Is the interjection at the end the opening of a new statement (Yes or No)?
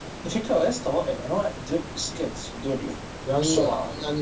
Yes